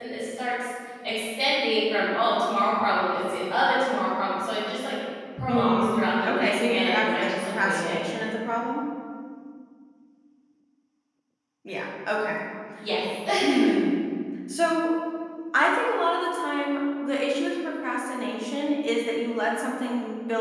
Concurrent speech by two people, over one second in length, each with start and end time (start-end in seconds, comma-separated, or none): 5.5-8.0